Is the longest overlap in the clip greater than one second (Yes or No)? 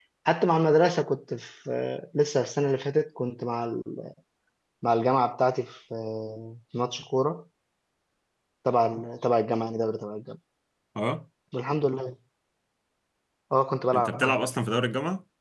No